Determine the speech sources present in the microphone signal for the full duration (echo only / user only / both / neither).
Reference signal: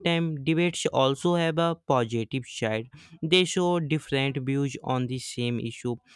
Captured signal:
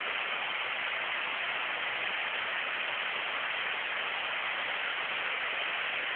neither